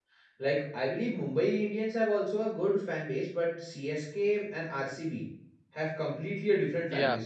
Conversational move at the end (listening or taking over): taking over